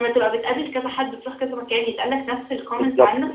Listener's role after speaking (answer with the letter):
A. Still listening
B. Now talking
B